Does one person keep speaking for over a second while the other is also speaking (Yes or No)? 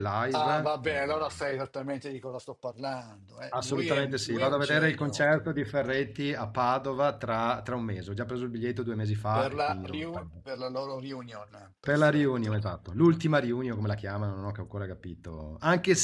Yes